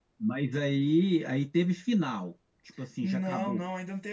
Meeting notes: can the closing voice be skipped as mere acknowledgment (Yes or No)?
No